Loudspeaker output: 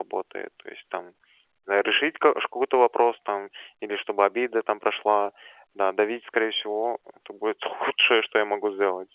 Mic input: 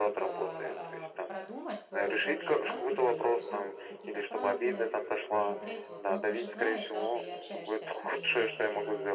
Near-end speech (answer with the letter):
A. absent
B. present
B